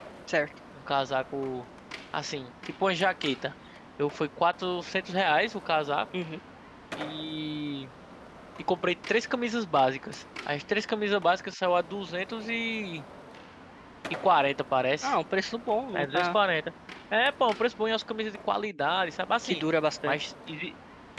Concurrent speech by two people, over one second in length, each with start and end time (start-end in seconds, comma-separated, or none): none